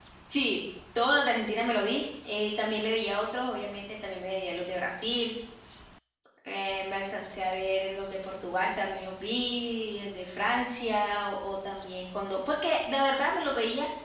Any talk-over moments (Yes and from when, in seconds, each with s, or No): No